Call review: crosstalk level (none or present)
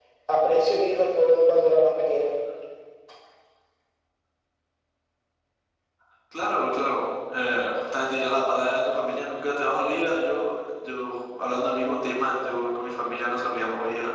none